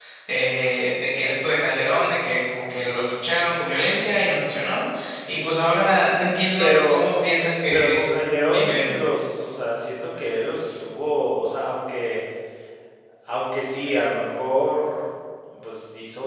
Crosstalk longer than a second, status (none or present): none